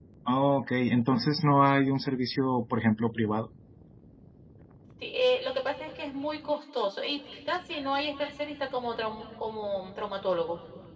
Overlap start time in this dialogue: none

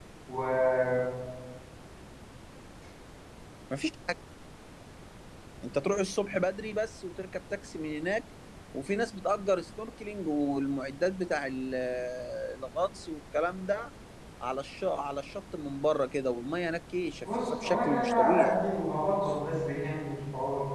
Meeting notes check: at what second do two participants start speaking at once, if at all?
17.2 s

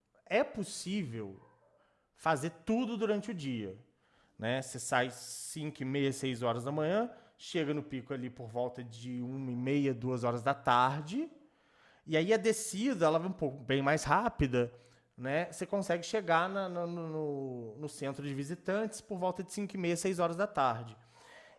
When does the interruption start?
none

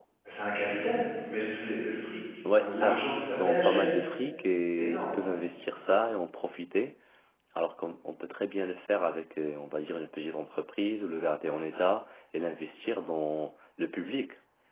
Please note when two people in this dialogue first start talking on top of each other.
2.6 s

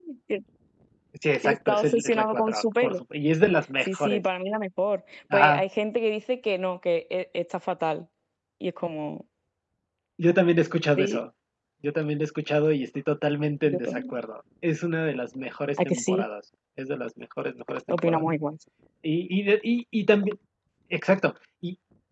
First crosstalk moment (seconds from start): 1.4 s

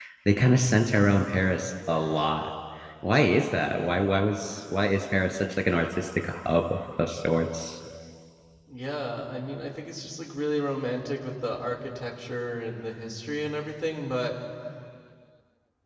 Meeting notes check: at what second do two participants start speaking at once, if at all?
none

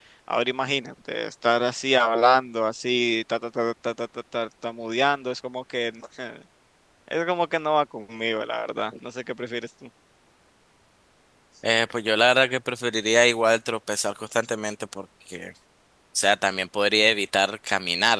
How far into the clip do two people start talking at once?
none

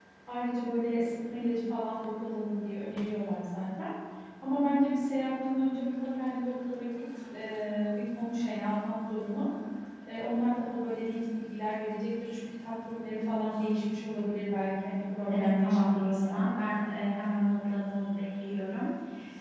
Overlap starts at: 15.3 s

